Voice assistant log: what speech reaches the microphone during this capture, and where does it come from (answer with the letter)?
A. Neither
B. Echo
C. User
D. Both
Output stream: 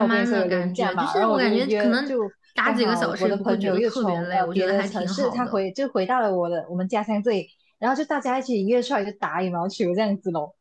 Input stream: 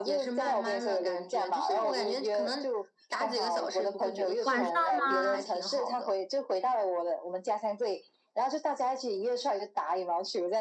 D